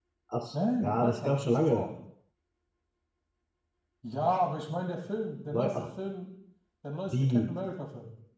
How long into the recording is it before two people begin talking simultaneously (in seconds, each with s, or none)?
0.5 s